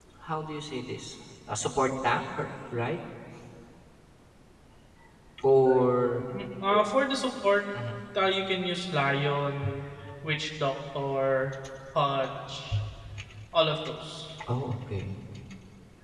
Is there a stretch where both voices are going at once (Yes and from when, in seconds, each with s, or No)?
No